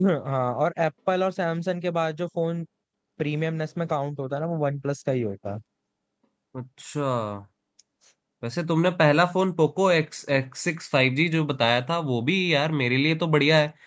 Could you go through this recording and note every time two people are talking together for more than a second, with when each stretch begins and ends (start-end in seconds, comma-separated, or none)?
none